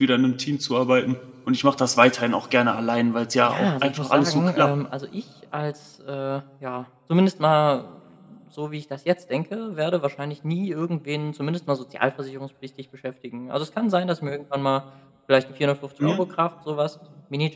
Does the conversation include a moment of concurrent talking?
Yes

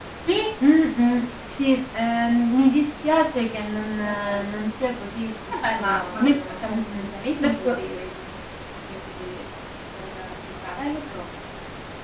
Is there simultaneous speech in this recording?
Yes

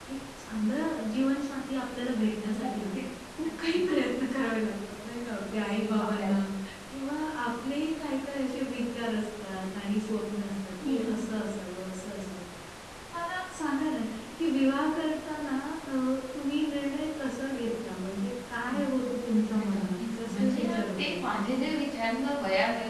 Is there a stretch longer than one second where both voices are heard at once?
Yes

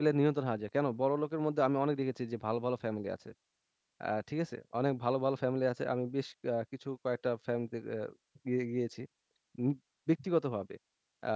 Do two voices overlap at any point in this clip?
No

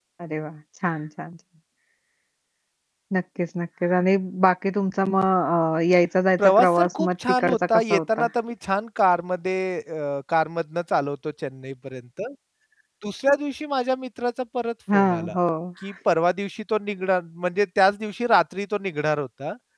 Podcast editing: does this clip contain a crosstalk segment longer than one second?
Yes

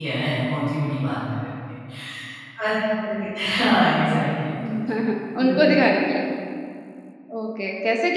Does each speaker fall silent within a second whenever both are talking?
Yes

